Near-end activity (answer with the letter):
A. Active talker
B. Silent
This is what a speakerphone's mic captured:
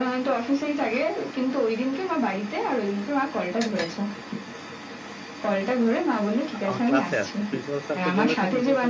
A